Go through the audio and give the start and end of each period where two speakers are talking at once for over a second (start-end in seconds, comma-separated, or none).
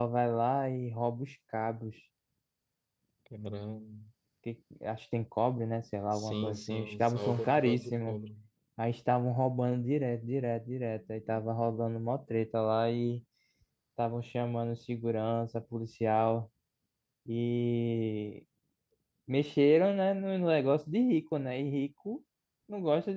6.1-8.2